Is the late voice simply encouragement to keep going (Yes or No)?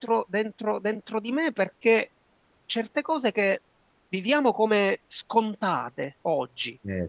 Yes